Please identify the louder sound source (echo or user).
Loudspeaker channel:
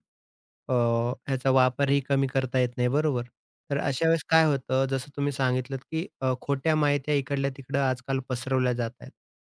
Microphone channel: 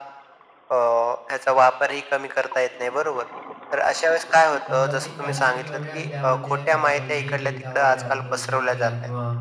echo